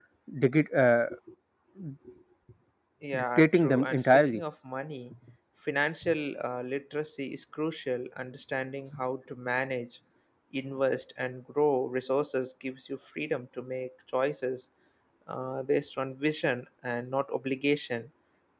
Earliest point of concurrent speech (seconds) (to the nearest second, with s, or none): 3 s